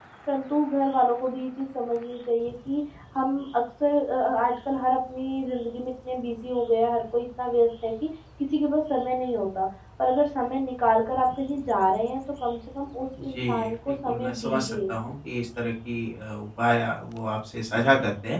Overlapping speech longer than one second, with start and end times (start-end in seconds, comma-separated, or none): 13.2-14.8